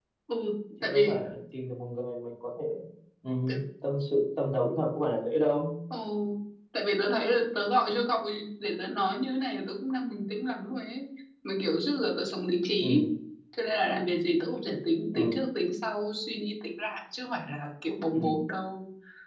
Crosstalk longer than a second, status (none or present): none